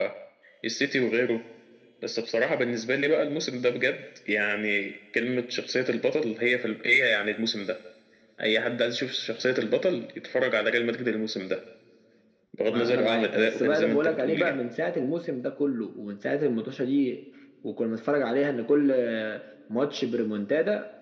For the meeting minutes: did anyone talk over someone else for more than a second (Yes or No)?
Yes